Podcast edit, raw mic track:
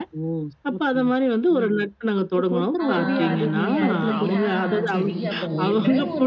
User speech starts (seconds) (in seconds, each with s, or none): 2.8 s